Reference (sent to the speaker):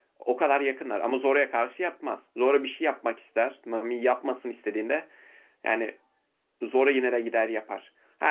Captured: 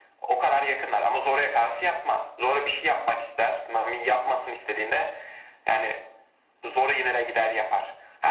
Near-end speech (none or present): none